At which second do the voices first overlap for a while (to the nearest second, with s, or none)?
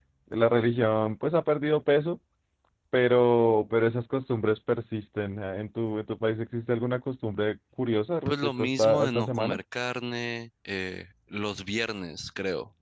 8 s